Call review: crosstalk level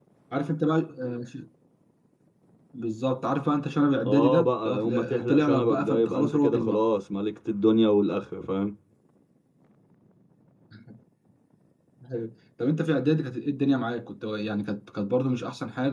present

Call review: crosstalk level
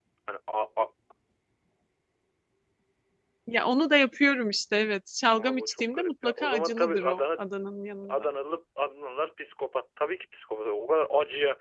present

